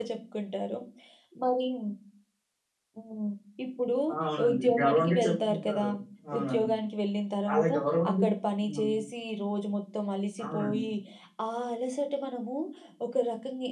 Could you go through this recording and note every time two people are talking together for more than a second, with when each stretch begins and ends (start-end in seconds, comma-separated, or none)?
4.5-5.9